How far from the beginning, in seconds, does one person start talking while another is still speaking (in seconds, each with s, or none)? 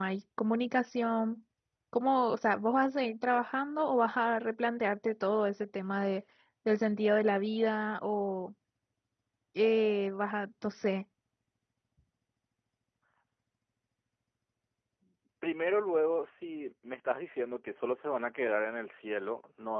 none